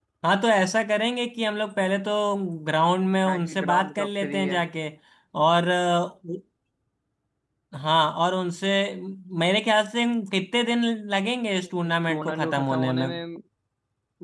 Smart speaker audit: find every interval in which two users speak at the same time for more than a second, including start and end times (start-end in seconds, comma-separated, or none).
3.3-4.6, 11.9-13.1